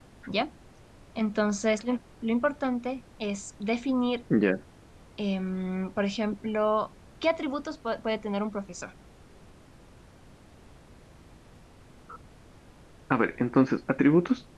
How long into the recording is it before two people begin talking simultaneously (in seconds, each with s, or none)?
none